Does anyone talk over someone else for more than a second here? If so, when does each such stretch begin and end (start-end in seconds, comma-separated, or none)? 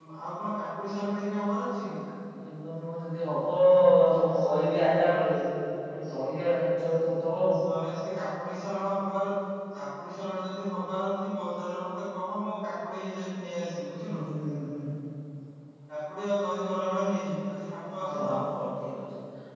none